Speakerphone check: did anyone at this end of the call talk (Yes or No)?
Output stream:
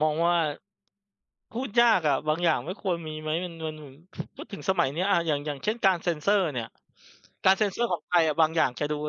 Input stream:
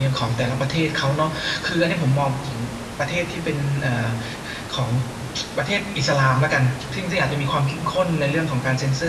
Yes